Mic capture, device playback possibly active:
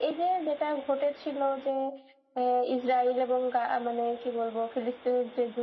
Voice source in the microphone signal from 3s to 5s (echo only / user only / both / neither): echo only